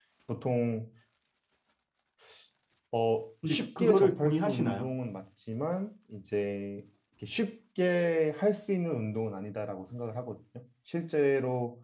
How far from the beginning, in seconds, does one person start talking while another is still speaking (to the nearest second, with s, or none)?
3 s